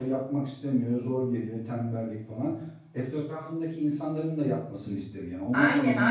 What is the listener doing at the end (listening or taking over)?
taking over